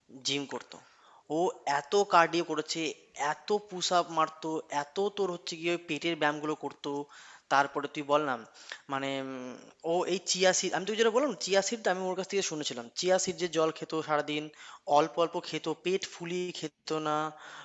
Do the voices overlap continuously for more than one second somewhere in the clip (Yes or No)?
No